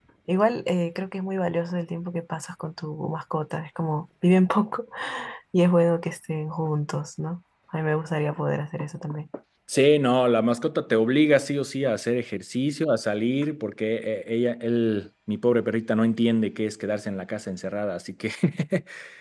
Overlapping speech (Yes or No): No